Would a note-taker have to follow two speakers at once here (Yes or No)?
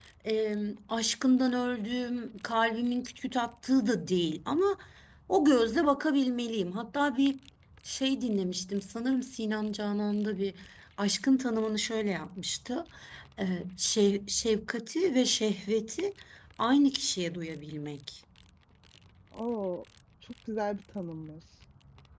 No